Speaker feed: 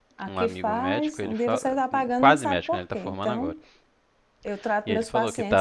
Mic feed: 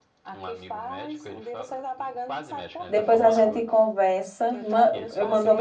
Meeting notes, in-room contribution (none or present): present